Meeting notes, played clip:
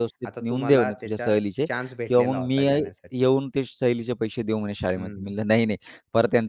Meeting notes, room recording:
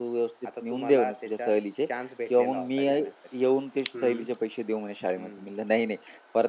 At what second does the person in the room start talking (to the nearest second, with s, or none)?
4 s